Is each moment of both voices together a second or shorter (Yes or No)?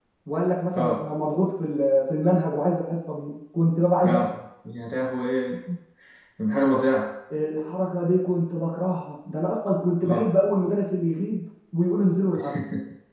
Yes